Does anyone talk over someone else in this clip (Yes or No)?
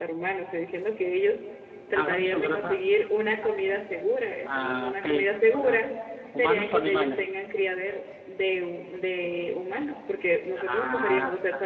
Yes